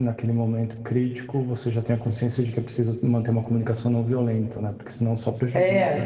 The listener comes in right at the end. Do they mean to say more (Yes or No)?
Yes